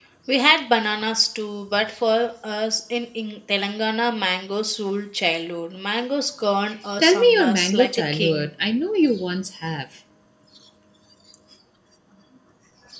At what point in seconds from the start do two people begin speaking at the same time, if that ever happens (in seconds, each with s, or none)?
7.0 s